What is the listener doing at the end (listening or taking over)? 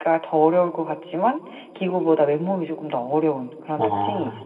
taking over